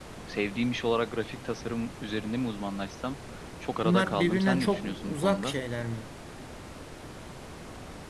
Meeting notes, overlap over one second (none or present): present